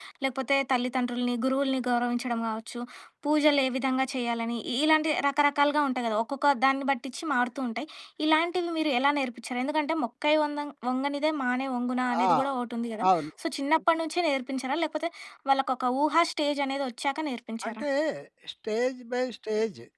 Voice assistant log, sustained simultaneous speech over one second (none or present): none